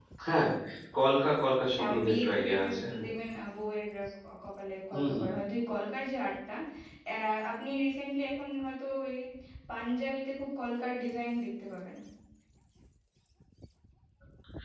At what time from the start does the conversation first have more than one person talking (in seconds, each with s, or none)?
1.8 s